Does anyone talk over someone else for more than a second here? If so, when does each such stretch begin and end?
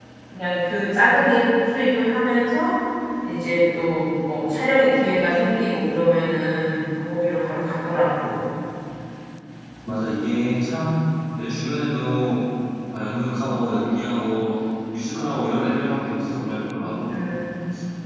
none

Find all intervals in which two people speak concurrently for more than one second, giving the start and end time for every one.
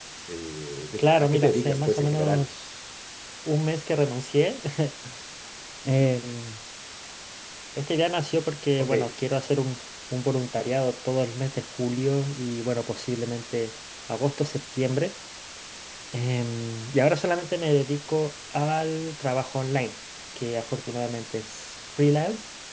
1.0-2.5

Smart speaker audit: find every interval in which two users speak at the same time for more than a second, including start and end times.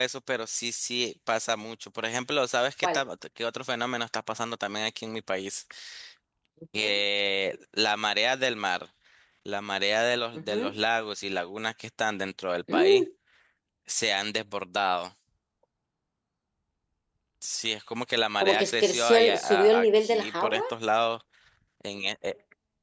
18.4-20.6

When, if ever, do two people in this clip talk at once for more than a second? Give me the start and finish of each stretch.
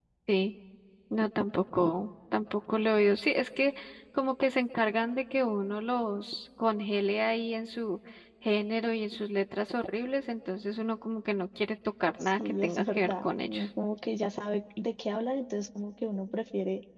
12.2-13.6

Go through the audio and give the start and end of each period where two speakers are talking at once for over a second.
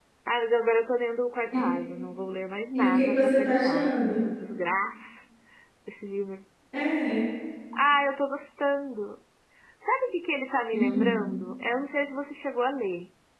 2.8-4.2

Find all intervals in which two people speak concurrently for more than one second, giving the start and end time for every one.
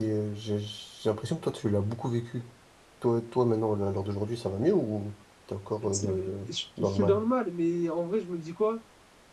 5.9-7.2

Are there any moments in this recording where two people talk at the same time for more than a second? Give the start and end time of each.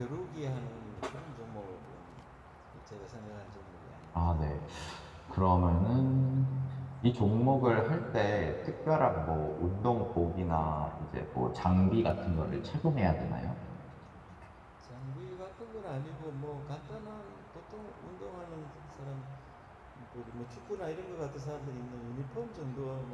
none

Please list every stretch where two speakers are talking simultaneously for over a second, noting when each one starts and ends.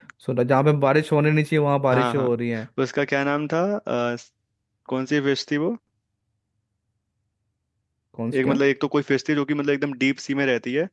none

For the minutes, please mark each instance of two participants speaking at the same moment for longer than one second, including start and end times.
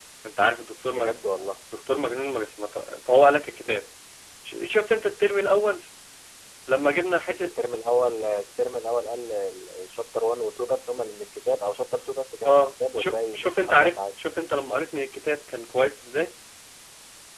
12.4-14.0

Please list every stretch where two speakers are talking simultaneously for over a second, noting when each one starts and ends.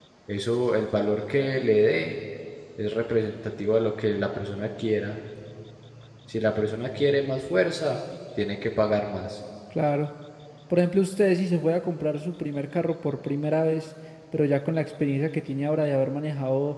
none

